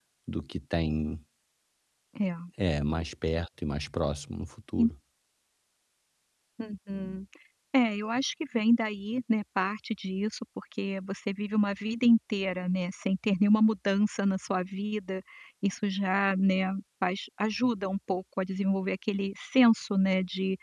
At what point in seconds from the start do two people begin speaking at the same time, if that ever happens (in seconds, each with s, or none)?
none